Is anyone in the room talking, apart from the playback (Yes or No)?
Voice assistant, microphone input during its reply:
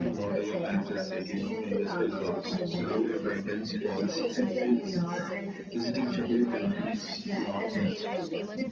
Yes